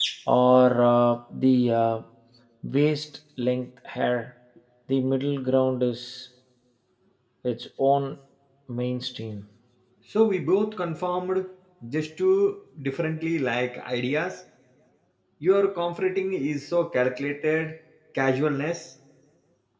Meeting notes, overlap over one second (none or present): none